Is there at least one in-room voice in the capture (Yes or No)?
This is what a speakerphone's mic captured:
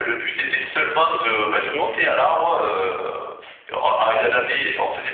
Yes